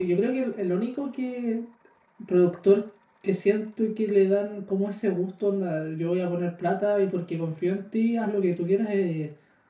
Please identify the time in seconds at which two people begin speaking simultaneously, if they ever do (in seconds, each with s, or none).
none